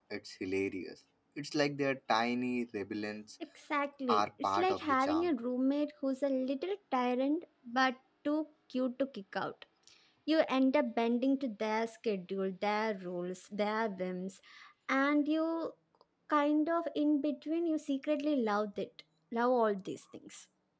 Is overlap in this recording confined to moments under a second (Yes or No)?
No